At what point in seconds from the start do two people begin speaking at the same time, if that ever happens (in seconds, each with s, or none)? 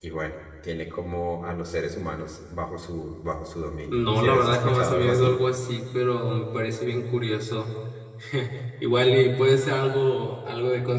3.9 s